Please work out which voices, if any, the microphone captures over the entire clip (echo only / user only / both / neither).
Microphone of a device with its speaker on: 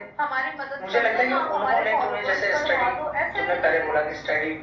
echo only